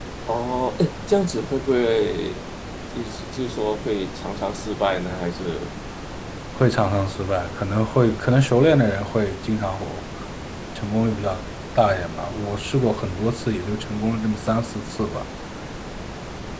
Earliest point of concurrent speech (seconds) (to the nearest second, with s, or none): none